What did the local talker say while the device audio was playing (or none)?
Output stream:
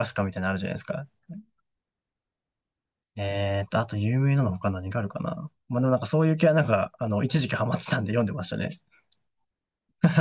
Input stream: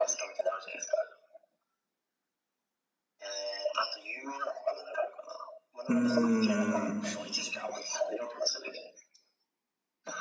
うーん。